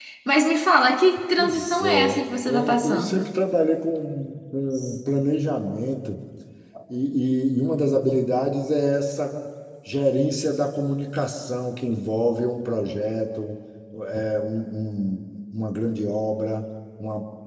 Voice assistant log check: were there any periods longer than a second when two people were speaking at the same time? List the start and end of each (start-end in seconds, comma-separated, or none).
1.4-3.3